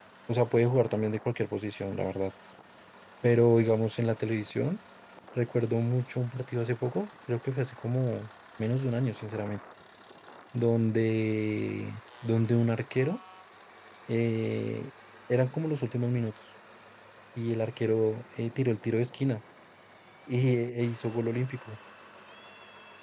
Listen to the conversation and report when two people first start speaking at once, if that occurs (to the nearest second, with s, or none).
none